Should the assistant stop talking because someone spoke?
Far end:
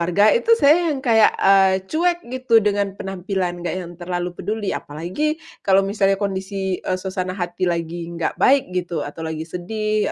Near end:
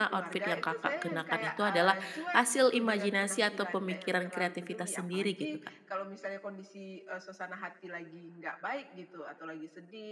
Yes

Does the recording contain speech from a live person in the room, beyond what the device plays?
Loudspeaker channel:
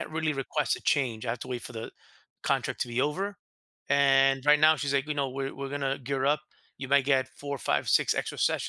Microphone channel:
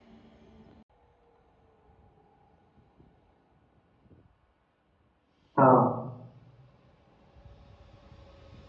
Yes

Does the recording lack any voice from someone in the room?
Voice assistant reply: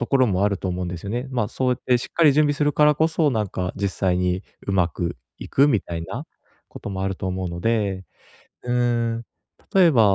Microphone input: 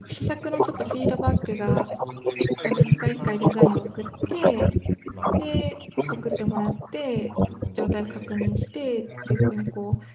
No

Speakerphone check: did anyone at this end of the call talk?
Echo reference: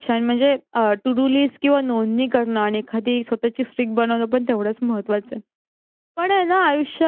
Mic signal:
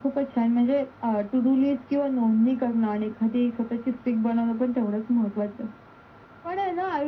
No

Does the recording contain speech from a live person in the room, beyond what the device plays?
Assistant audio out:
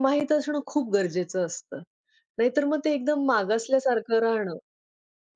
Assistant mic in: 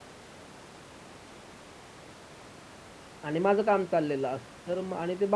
Yes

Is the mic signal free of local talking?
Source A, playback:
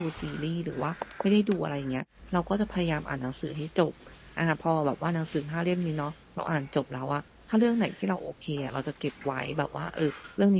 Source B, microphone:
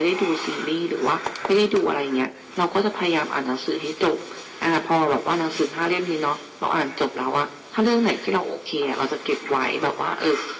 Yes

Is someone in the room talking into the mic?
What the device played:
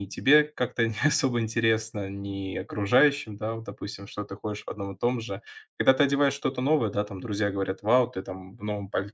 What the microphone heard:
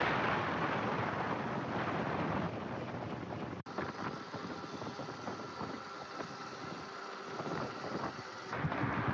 No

